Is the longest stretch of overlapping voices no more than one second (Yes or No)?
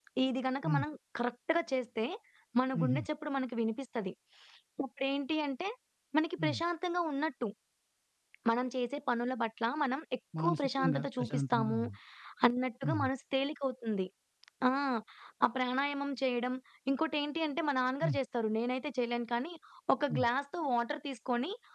No